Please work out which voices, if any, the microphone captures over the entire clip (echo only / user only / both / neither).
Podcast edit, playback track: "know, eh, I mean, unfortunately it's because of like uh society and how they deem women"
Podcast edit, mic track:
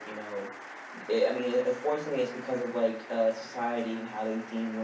echo only